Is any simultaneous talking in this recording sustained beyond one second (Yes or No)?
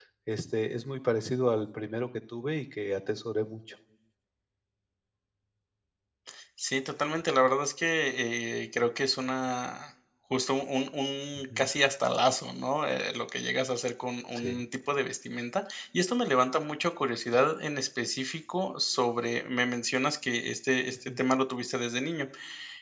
No